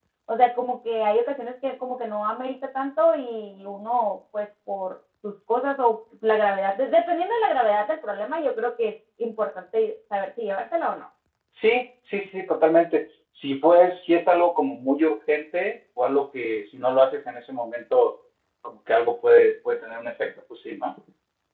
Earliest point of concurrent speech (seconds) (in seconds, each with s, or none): none